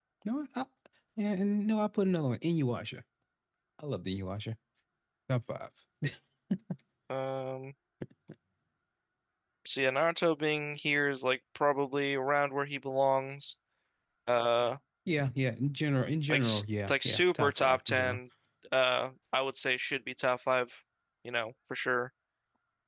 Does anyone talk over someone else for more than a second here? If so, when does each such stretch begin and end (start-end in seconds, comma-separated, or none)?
16.3-18.2